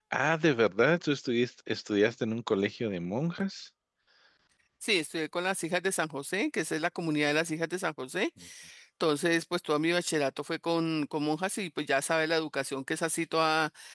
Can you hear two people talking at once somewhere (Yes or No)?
No